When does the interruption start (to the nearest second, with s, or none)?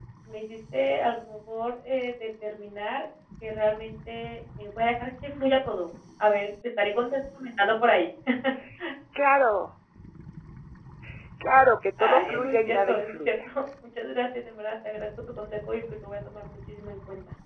12 s